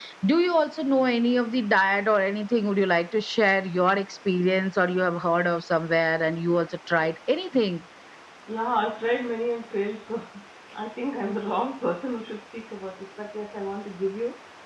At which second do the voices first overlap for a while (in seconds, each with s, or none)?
none